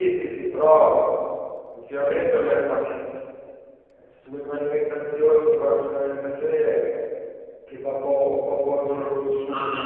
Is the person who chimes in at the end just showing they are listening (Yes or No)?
No